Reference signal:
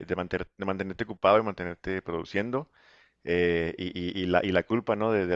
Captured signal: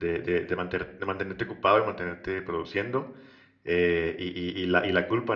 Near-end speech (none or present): none